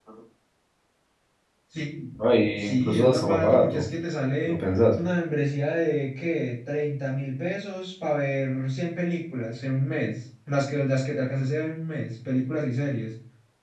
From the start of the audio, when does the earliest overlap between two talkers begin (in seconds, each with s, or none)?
2.6 s